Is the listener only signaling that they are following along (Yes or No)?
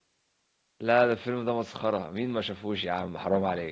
No